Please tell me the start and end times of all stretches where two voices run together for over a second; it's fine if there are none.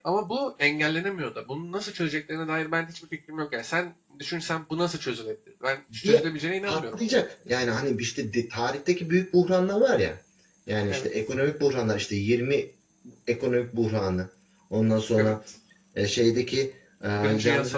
none

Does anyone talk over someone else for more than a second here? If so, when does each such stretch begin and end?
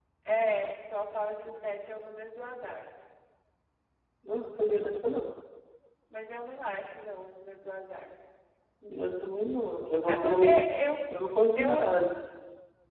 none

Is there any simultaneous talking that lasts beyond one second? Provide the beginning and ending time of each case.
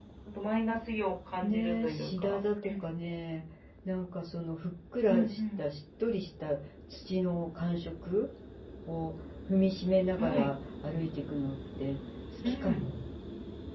1.4-2.9

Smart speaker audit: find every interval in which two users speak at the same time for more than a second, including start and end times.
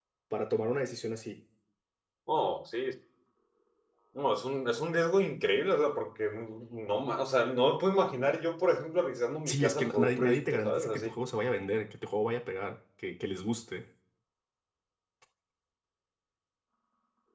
9.5-11.2

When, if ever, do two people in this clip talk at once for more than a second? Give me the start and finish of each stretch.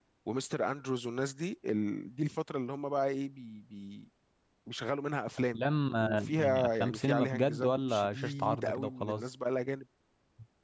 6.0-9.3

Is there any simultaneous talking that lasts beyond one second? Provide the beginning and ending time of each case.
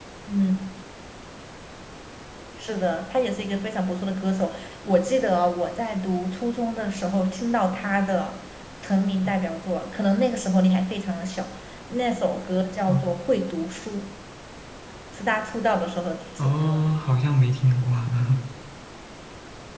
none

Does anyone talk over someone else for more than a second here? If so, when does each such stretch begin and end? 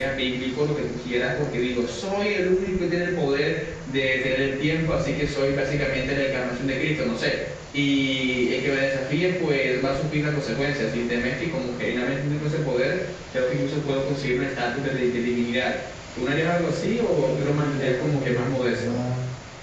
17.1-19.0

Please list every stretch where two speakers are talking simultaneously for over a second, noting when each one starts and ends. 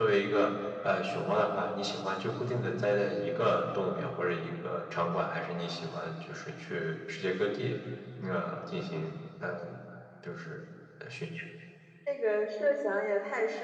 none

